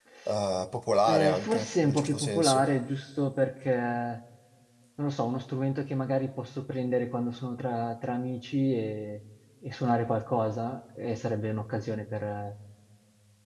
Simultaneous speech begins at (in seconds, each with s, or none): 1.1 s